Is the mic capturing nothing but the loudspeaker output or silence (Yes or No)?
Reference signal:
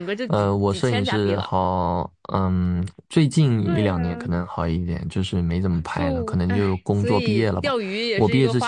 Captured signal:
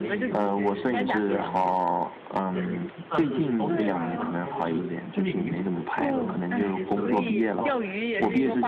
No